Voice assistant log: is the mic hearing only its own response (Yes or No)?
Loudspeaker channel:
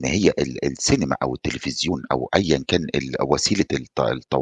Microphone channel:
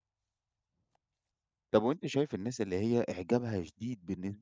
No